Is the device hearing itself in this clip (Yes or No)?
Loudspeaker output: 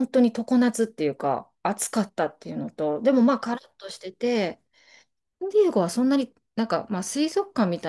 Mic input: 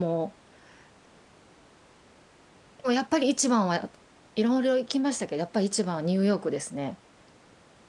No